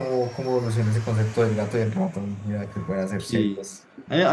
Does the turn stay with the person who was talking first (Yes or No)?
No